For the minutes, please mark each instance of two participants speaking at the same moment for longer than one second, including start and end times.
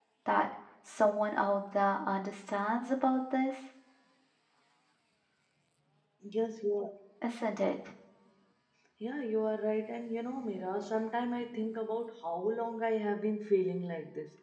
none

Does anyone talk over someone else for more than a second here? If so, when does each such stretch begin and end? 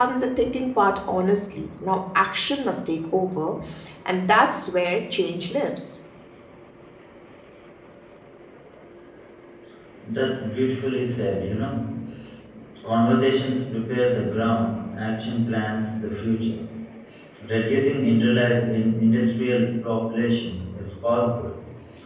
none

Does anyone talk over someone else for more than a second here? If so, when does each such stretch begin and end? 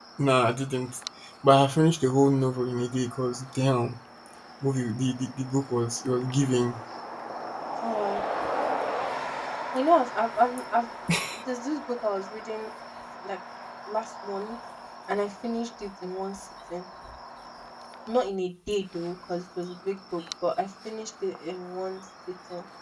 none

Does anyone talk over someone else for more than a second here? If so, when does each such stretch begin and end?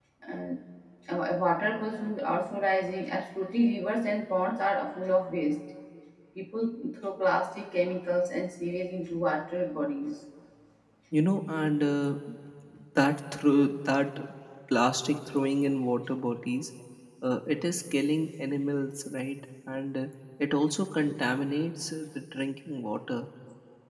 none

